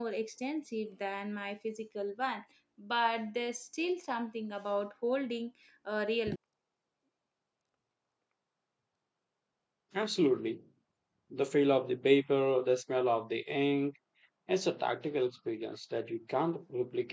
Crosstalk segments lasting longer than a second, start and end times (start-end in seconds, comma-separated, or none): none